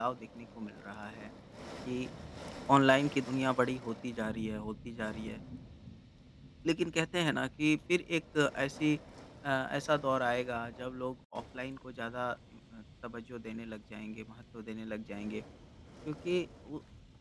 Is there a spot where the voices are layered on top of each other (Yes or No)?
No